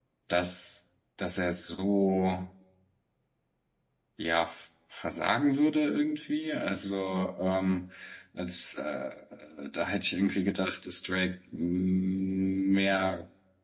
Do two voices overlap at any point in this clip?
No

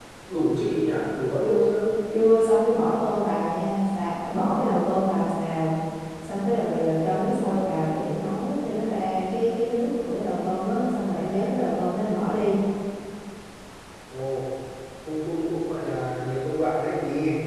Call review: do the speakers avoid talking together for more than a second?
Yes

